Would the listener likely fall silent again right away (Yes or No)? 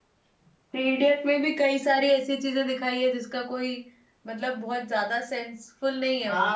No